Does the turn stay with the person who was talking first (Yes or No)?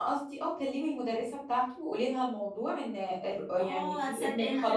No